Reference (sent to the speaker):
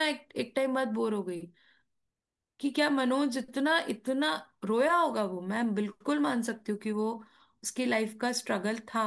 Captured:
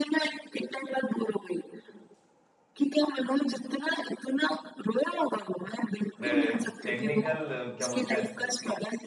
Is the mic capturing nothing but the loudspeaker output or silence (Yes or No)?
No